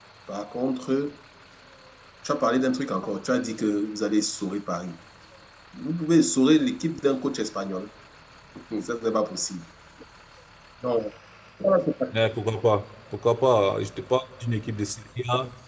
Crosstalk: none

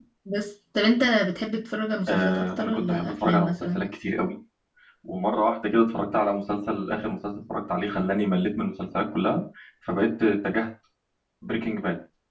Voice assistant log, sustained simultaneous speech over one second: present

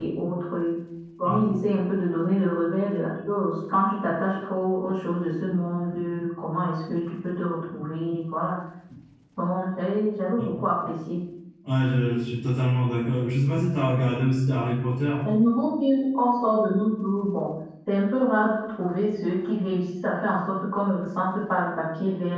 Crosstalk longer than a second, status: none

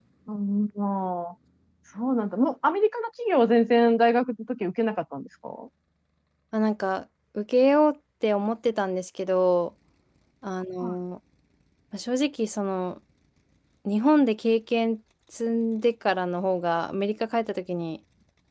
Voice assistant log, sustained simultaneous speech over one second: none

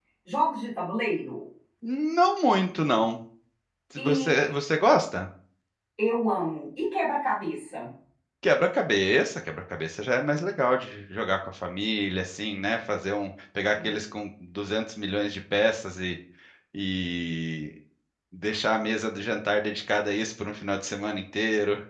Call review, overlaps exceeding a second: none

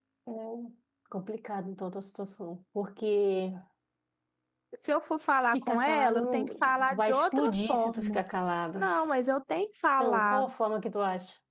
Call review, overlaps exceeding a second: present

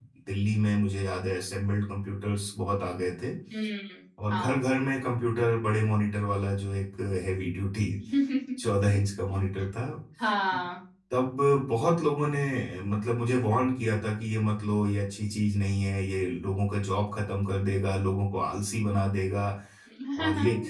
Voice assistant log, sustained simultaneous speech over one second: none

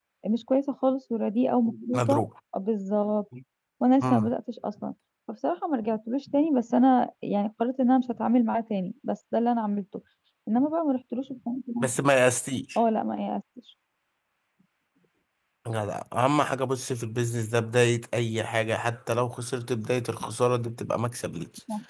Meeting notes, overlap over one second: none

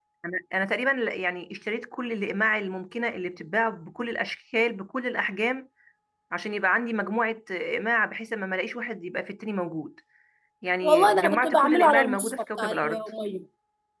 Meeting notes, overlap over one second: present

